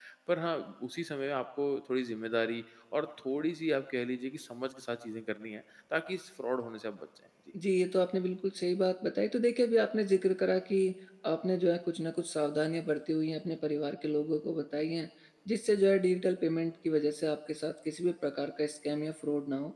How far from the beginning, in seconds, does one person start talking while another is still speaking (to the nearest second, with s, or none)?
none